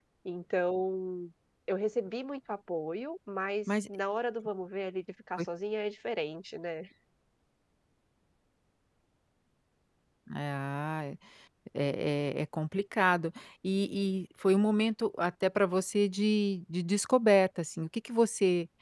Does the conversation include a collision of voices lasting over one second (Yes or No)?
No